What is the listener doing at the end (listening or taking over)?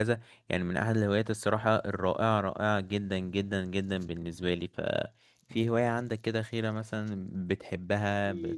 taking over